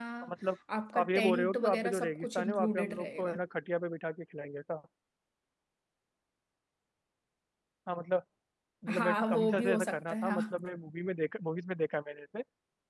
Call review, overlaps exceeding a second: present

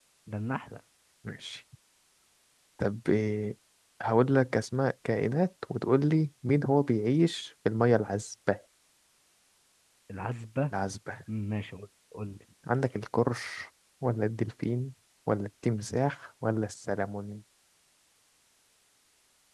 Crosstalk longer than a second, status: none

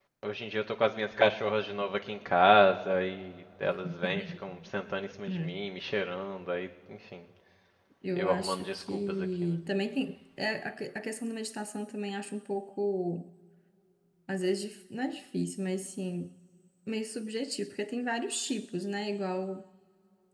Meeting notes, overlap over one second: present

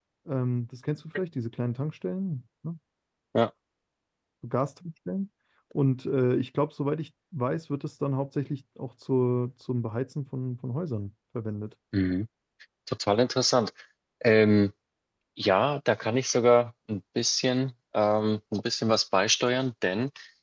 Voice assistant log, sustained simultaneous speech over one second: none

